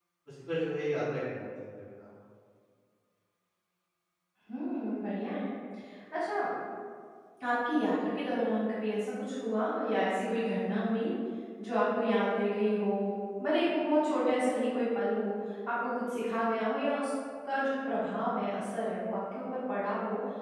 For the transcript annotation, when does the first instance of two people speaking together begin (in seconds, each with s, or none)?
none